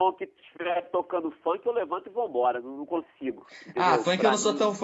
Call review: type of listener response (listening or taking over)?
taking over